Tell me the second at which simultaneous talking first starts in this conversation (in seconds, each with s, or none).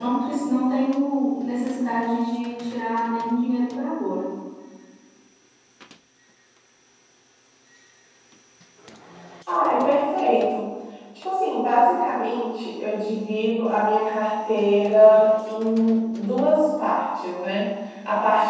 none